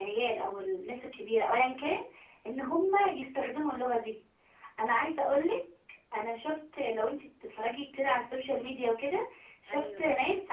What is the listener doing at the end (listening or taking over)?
listening